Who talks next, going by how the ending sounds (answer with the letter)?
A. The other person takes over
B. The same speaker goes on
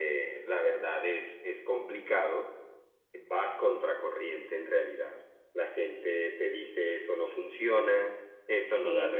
B